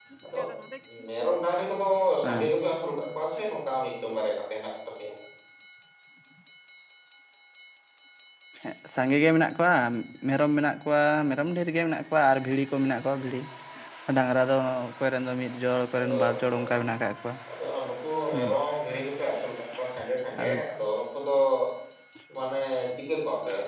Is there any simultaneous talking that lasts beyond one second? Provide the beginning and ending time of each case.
none

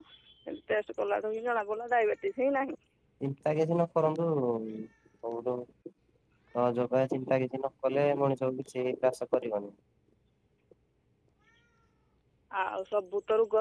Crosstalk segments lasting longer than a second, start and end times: none

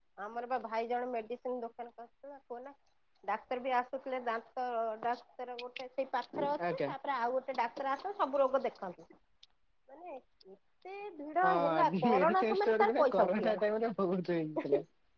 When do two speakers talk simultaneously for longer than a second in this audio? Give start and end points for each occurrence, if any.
11.4-13.6

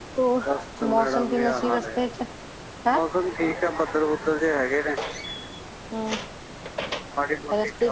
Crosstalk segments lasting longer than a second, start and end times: 0.9-2.1

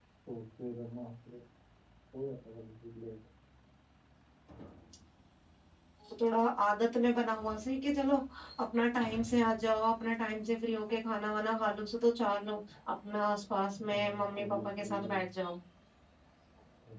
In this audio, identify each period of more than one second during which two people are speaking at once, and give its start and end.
13.9-15.2

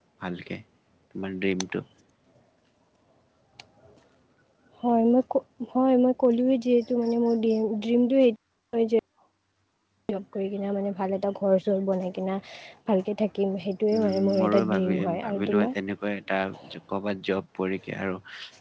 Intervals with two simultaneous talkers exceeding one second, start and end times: 13.9-15.7

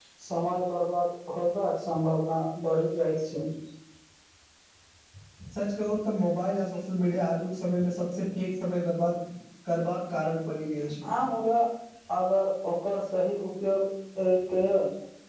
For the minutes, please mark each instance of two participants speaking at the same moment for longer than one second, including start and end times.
none

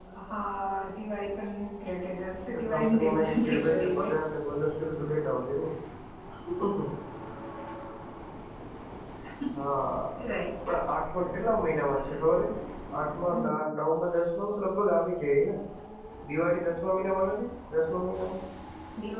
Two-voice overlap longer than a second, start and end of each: 2.7-4.1

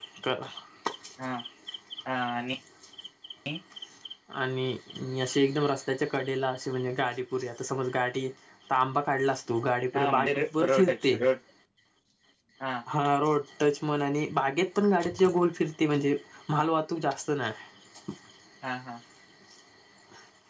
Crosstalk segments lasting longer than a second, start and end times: 9.9-11.2

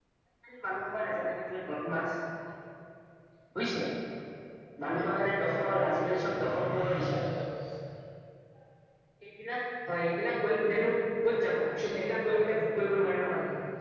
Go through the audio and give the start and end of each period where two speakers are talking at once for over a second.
5.4-6.7

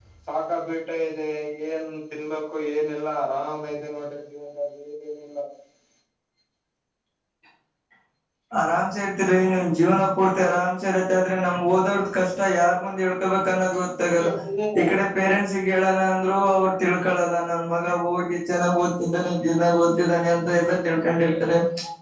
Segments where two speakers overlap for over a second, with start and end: none

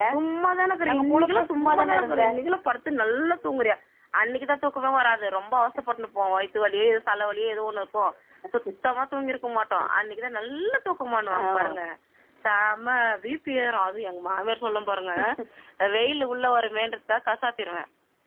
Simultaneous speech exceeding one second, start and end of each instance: 0.9-2.2

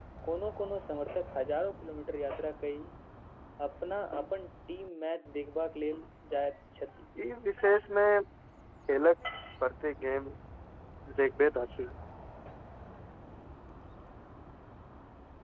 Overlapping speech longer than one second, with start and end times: none

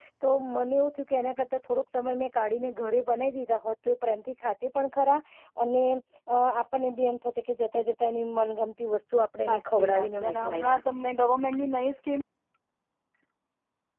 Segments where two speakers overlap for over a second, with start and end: 9.4-10.8

